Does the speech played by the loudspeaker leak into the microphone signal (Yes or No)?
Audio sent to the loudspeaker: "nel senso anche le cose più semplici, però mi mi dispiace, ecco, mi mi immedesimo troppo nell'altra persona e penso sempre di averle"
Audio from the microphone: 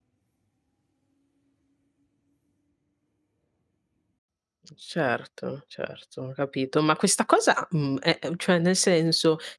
No